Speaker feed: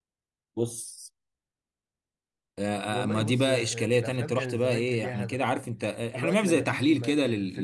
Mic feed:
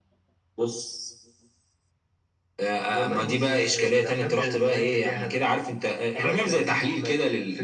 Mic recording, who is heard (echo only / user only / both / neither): echo only